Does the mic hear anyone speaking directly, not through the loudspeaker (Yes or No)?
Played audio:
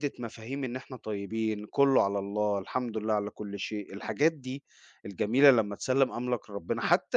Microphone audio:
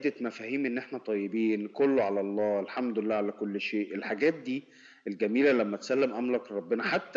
No